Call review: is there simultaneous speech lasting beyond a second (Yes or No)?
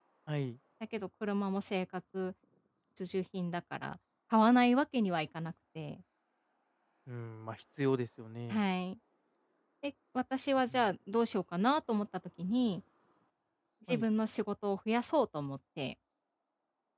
No